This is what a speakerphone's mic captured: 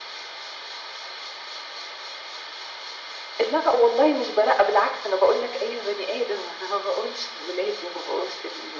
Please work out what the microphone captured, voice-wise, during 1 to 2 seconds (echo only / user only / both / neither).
neither